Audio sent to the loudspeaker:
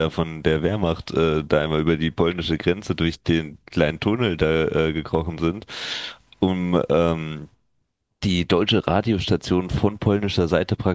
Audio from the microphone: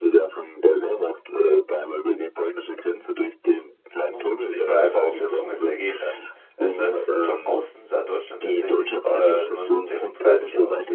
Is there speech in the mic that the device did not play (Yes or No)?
Yes